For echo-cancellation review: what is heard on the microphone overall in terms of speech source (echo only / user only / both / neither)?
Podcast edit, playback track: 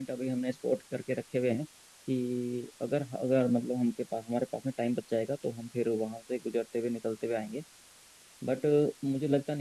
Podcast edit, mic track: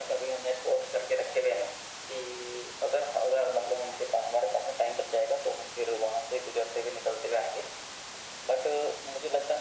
echo only